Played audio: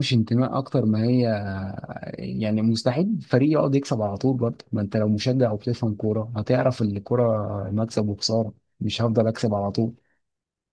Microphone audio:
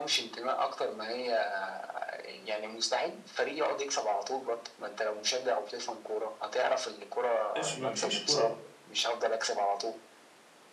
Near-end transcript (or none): مش مش مش كوره